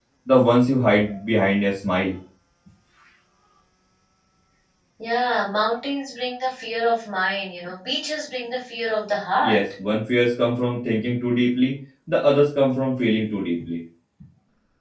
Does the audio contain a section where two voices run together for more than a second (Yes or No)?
No